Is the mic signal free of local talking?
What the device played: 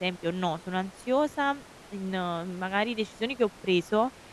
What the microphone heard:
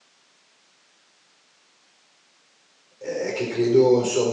No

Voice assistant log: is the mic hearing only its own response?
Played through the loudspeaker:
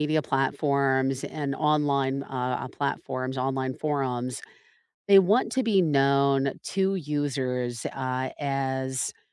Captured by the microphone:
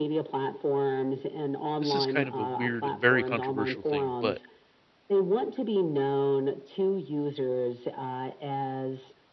No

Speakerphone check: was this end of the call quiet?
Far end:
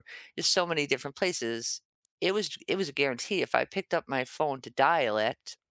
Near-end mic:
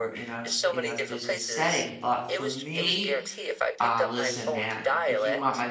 No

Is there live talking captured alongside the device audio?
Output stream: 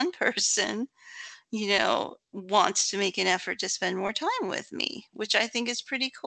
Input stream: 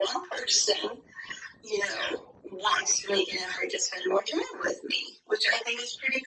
No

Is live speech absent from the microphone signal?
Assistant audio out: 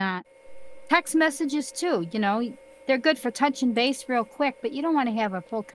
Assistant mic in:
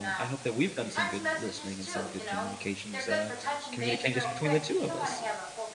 No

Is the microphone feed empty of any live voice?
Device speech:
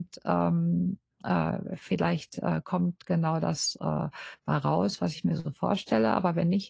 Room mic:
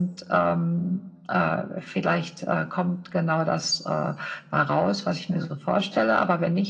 Yes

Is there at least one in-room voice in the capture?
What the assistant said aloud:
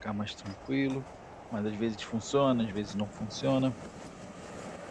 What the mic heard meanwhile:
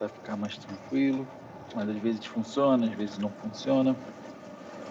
No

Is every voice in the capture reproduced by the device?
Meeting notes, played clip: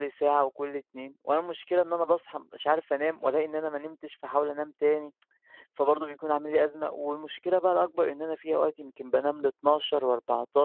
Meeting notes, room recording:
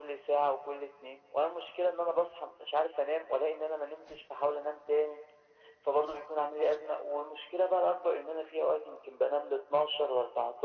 Yes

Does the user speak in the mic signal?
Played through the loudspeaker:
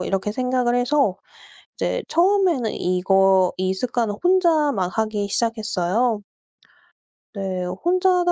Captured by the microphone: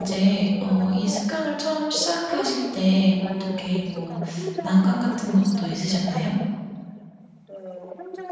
Yes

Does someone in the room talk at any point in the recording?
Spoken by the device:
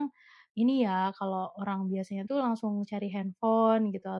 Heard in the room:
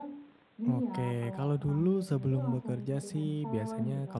Yes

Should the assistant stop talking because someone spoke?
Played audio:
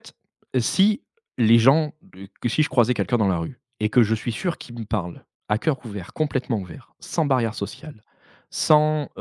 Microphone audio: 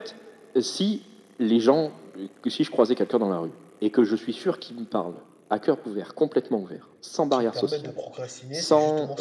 Yes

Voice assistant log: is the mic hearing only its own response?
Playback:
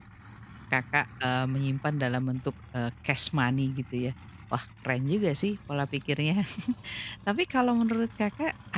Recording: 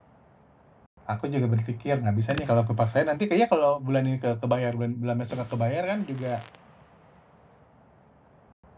No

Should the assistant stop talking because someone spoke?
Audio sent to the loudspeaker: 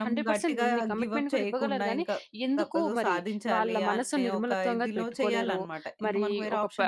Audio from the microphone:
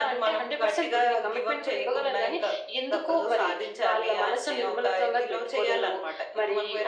No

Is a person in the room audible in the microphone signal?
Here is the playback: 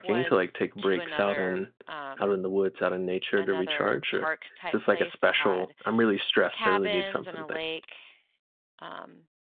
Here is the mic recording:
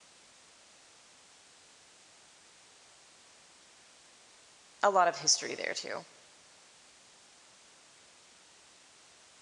Yes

